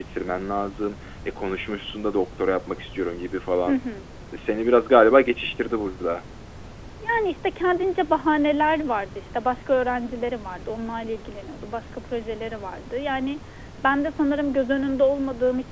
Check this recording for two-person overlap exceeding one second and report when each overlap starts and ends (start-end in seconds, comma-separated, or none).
none